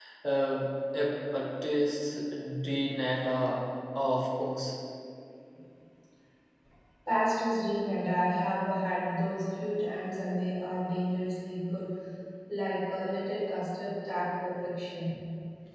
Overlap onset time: none

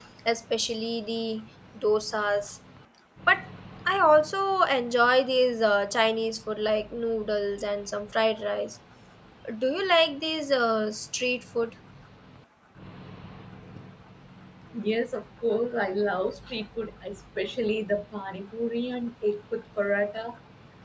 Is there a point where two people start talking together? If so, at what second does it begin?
none

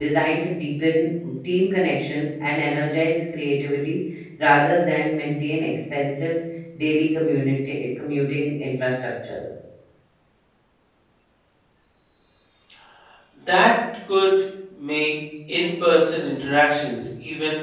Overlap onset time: none

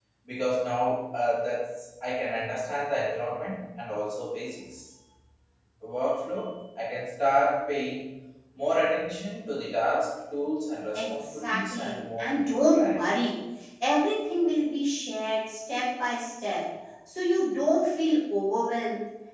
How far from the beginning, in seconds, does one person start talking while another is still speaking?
11 s

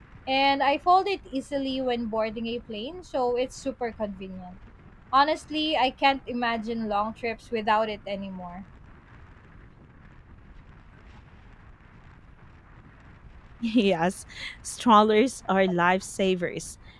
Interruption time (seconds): none

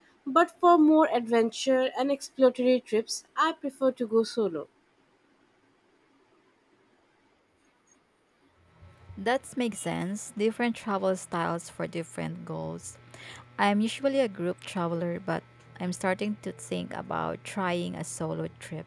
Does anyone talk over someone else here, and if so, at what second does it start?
none

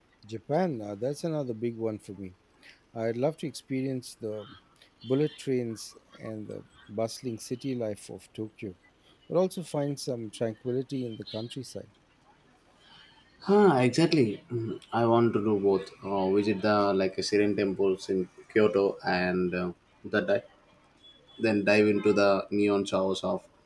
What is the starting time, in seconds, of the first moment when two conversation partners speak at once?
none

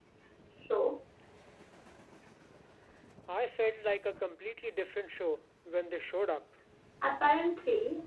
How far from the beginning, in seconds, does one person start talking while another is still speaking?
none

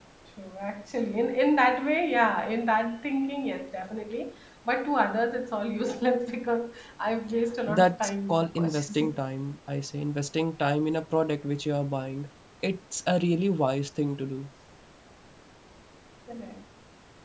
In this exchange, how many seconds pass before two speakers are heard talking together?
8 s

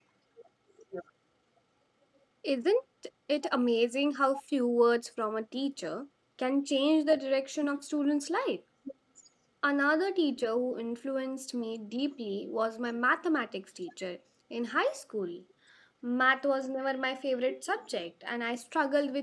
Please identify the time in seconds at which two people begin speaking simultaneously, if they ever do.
none

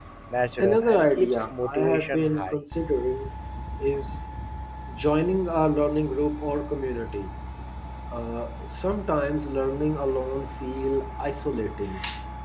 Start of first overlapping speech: 1 s

